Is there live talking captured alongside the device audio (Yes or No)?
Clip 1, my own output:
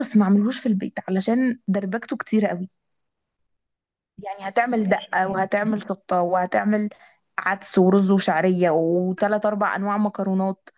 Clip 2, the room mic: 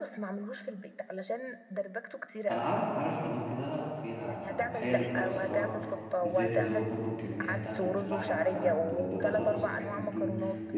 Yes